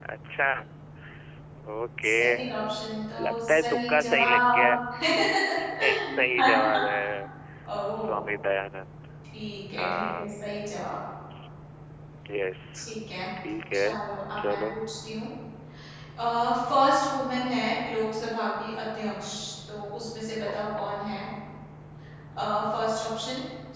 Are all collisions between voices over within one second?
No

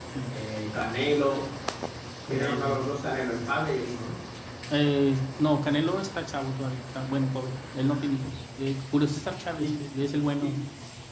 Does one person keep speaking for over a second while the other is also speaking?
No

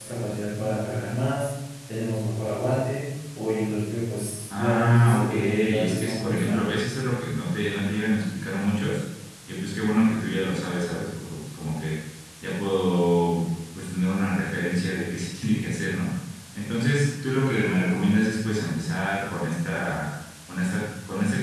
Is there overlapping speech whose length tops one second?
Yes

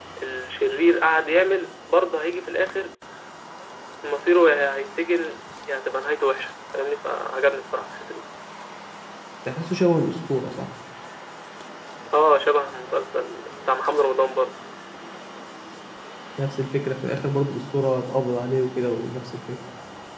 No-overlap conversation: Yes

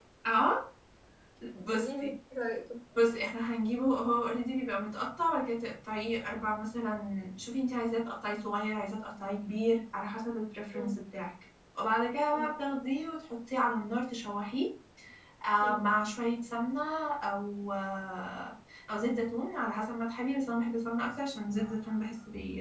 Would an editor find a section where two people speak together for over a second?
No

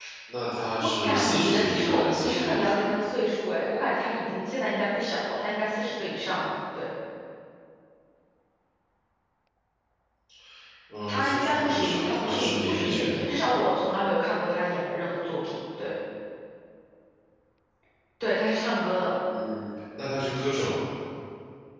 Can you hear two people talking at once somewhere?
Yes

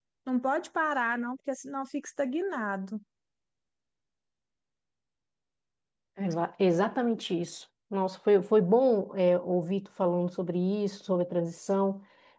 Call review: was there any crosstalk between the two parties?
No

